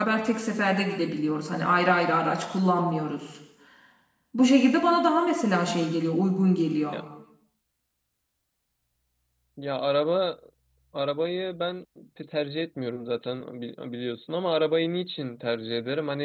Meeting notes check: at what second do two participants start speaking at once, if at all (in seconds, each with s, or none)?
none